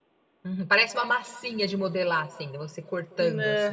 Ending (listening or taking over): taking over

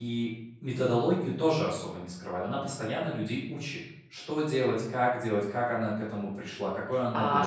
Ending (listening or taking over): taking over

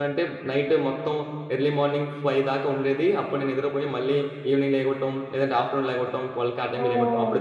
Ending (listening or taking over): listening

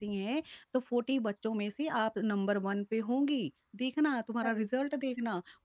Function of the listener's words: listening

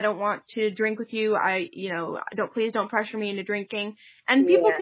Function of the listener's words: listening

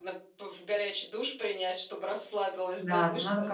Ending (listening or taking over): taking over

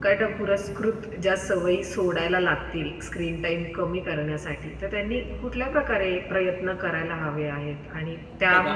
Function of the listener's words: listening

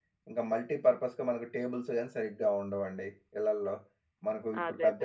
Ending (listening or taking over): listening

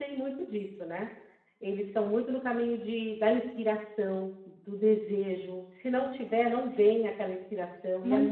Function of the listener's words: listening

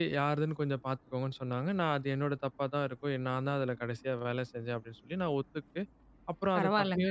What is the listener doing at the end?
listening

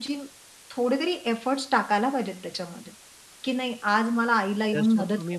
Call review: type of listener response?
taking over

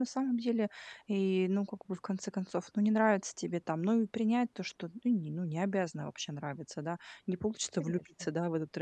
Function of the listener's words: listening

